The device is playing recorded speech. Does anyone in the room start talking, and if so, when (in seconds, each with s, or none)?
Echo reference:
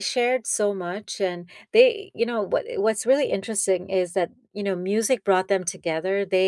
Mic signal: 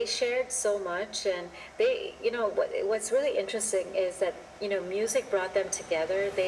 none